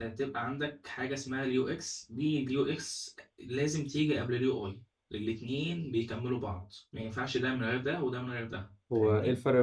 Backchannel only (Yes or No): No